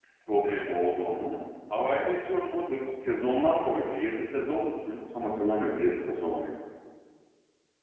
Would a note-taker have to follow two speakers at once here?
No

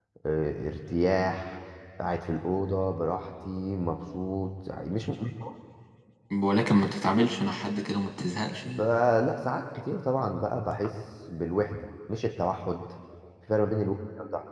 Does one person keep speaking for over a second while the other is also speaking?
No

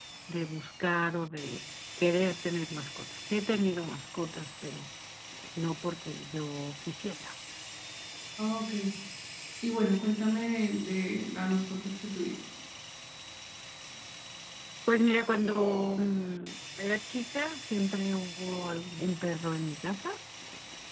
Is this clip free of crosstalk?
Yes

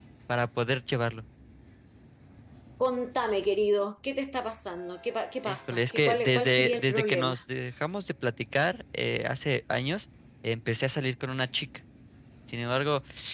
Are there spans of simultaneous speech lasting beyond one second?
Yes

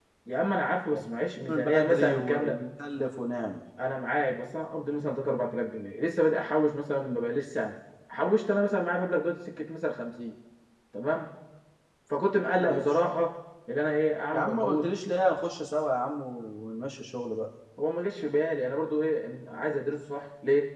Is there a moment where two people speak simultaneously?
Yes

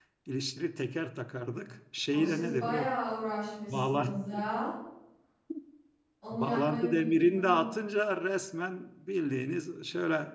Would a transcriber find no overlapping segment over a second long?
No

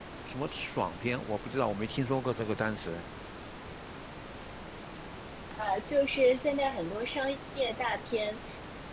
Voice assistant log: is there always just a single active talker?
Yes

